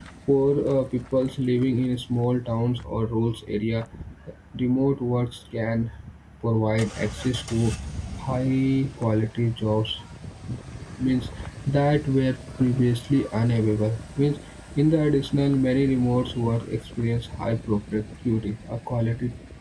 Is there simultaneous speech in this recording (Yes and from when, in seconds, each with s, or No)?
No